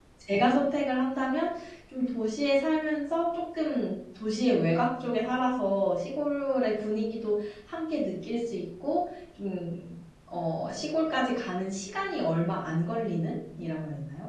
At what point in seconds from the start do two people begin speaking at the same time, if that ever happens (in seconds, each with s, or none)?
none